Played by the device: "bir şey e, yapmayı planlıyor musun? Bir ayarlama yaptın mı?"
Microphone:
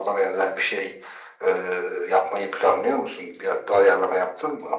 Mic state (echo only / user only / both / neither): echo only